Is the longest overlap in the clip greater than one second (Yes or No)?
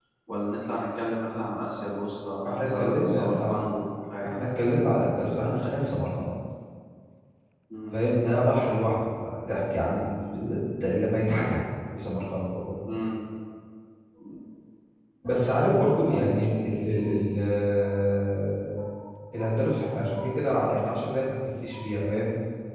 Yes